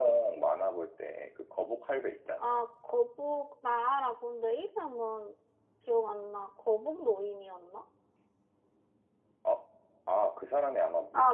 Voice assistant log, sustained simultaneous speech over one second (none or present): none